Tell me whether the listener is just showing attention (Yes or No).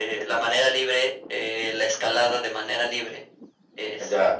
No